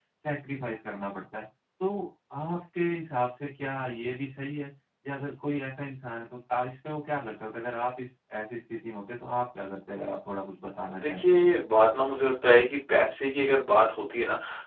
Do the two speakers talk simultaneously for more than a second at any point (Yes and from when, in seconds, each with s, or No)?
No